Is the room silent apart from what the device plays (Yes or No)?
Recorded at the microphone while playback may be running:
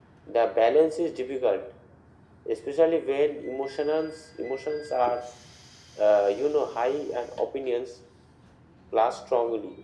Yes